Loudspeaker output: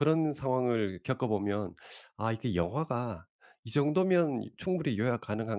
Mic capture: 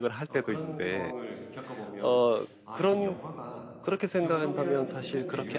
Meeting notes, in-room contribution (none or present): present